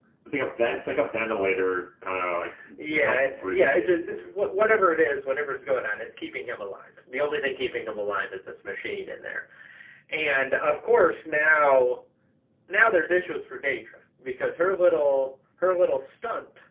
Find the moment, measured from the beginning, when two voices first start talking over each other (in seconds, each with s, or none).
2.8 s